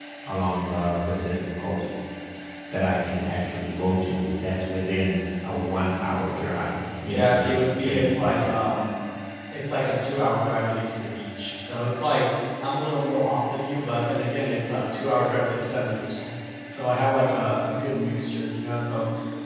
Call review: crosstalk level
present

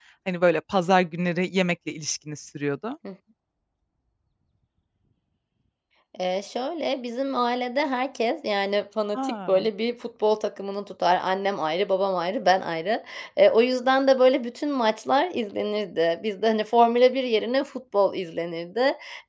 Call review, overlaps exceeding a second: none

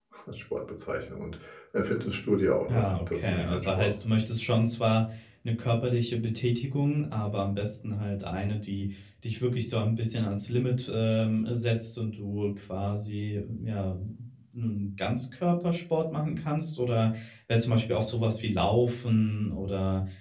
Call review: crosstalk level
present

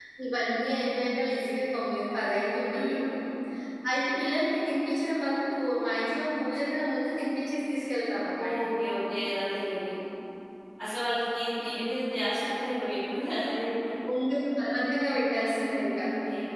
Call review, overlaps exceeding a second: none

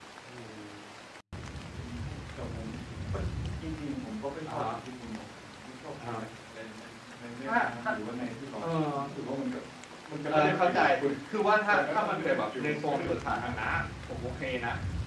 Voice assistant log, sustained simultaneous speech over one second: present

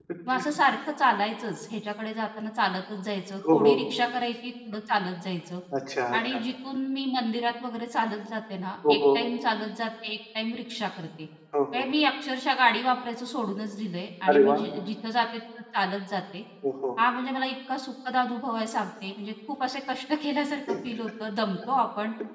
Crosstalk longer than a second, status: none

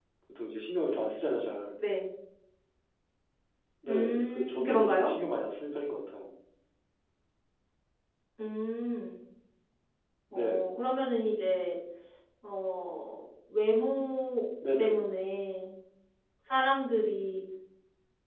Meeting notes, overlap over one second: present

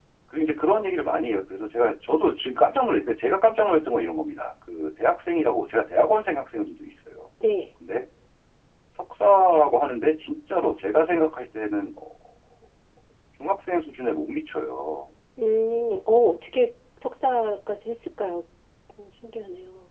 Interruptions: none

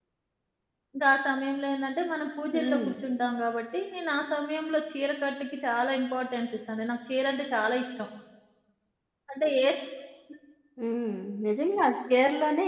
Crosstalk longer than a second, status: none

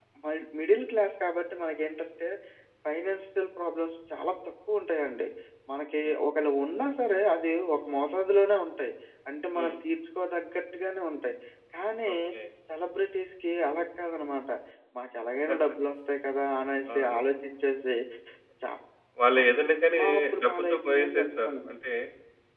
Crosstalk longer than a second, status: present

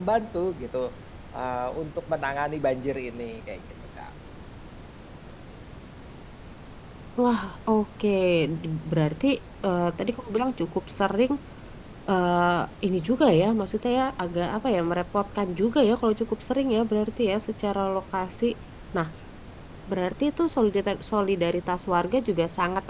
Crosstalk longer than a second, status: none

